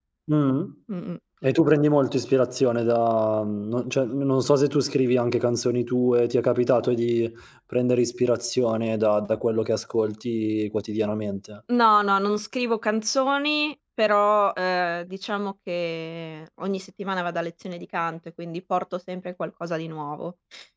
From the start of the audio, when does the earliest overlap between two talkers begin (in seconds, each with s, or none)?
none